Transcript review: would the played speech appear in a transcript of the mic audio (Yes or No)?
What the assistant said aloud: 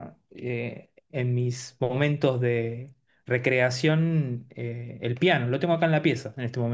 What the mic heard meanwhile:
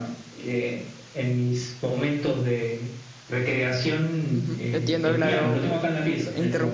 Yes